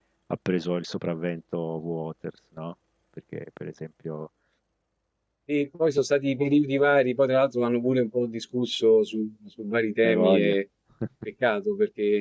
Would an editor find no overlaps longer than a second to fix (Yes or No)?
Yes